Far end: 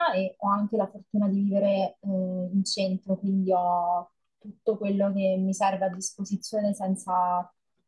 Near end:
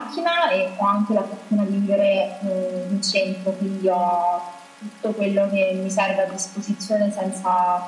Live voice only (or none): none